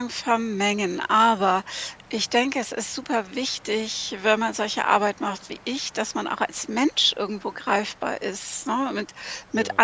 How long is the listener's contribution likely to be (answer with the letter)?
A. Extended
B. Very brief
B